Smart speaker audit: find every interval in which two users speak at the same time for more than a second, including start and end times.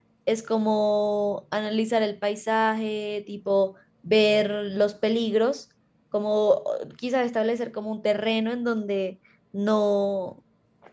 none

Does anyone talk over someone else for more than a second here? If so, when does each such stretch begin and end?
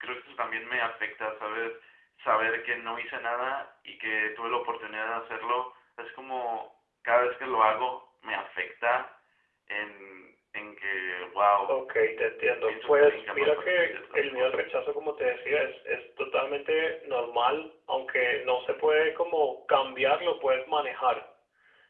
12.7-14.7

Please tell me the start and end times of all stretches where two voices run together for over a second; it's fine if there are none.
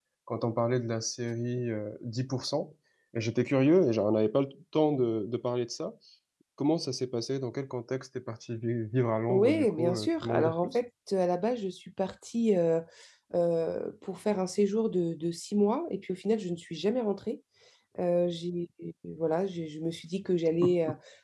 9.3-10.8

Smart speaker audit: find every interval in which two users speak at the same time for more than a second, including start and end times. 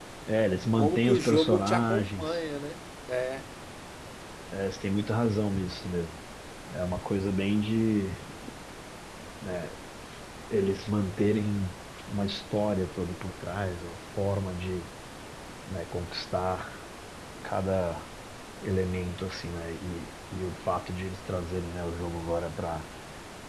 0.8-2.4

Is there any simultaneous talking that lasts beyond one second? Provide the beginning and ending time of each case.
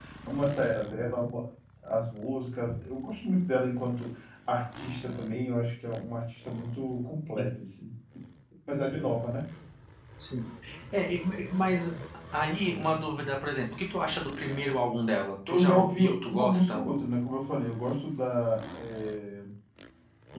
15.5-16.8

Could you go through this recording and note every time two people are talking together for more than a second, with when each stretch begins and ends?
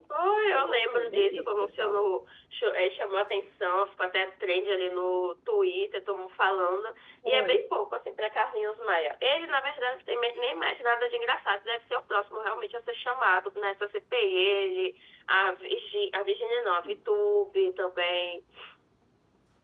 0.5-2.1

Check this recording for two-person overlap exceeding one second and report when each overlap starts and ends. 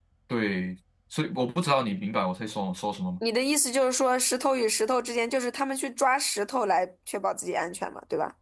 none

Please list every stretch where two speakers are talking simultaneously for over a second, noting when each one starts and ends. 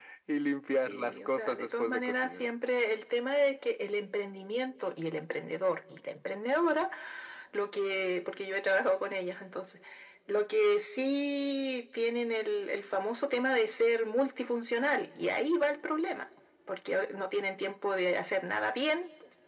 0.7-2.4

